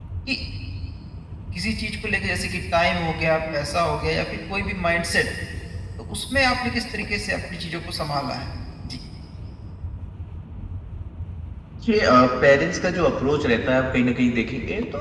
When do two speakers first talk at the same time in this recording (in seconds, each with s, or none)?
none